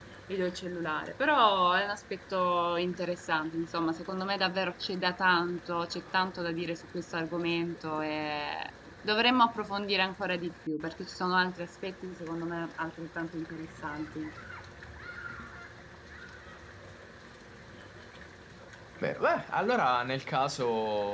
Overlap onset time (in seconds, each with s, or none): none